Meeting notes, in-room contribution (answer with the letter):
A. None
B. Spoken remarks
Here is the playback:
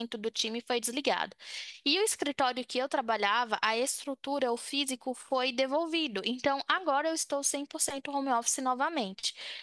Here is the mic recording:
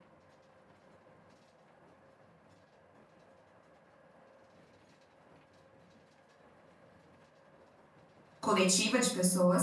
B